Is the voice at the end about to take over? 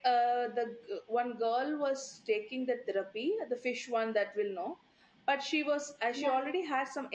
No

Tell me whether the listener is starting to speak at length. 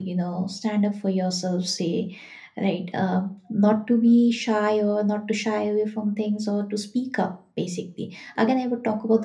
No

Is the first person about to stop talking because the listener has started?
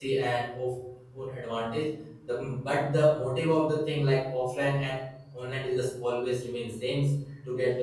No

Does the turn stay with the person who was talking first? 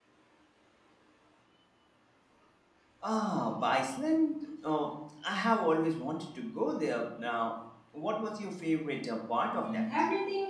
No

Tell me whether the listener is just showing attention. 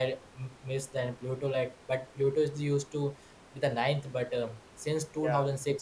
Yes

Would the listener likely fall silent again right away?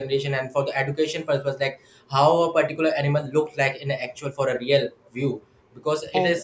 Yes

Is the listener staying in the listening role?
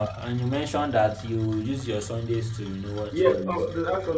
No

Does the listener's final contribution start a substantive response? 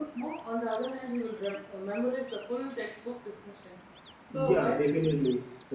Yes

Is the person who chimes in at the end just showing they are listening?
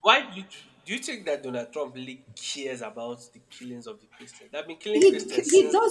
No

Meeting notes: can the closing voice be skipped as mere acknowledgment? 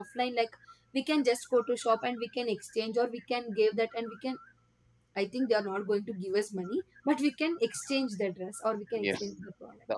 No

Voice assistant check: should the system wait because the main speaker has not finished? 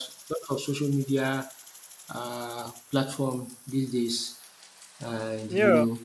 No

